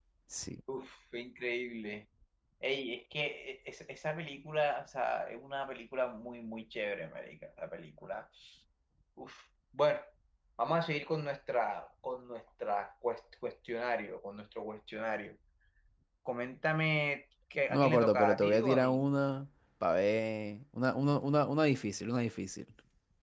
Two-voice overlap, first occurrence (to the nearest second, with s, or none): 18 s